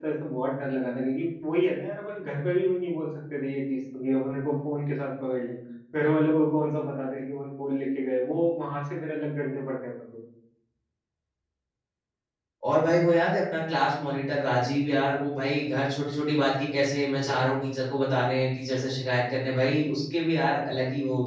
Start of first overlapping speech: none

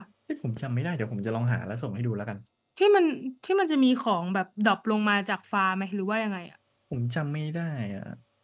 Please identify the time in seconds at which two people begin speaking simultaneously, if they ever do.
none

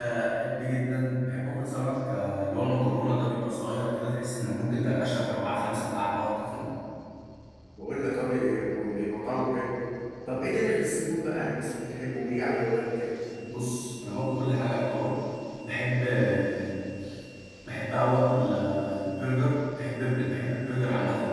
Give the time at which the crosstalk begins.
none

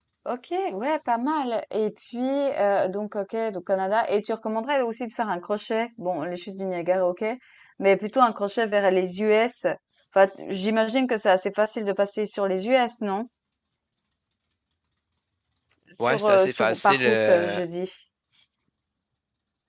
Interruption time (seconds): 16 s

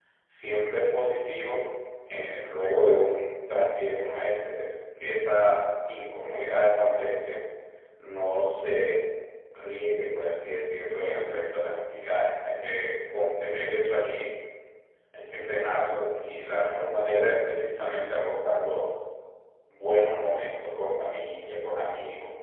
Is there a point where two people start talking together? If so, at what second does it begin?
none

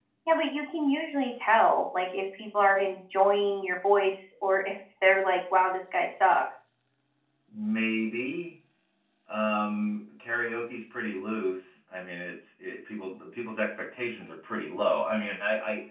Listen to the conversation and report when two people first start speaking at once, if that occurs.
none

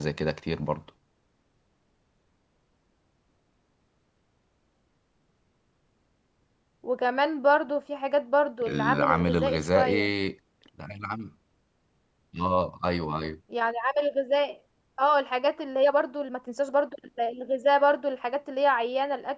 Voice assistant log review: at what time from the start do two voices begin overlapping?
9 s

